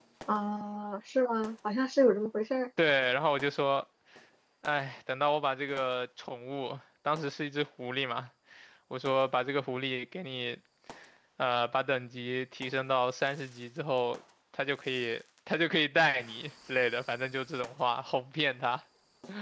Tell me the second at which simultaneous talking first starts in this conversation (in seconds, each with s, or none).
none